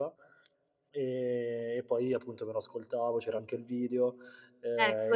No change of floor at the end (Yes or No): No